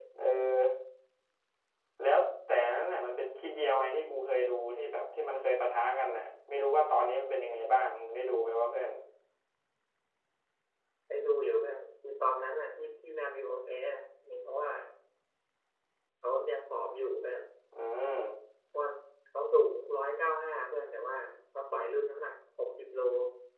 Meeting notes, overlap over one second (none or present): none